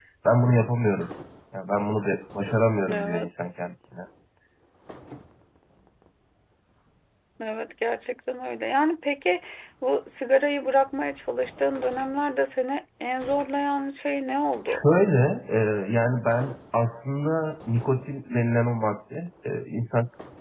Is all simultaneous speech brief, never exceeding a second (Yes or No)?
Yes